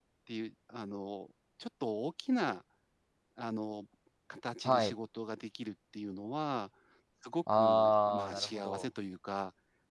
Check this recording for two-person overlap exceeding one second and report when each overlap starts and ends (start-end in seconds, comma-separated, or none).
7.5-8.8